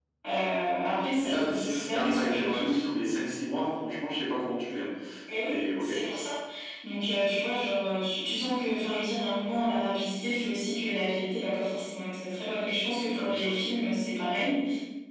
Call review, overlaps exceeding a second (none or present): present